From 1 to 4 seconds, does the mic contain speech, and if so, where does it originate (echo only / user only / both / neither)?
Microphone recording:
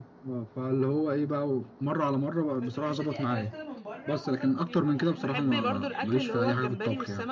both